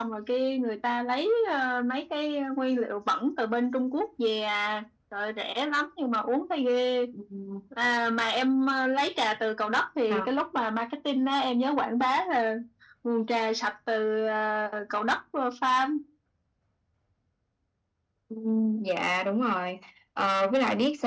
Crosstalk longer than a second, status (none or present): none